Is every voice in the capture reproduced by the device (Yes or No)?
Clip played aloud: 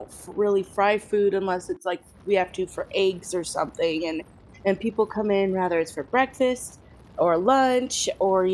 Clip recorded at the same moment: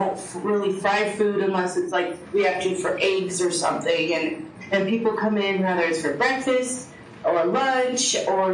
Yes